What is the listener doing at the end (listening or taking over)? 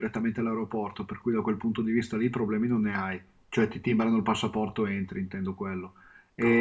listening